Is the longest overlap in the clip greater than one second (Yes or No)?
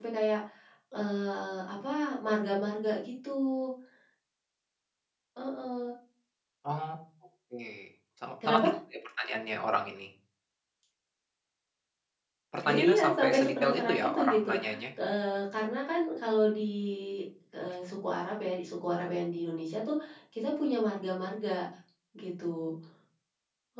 Yes